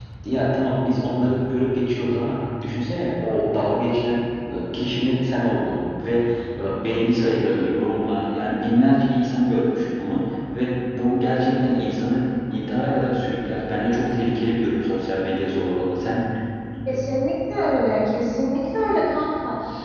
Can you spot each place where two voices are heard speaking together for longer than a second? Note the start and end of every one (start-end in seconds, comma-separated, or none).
none